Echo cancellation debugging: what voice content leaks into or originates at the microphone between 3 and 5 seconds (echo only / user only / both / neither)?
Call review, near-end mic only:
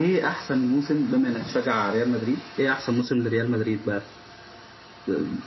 echo only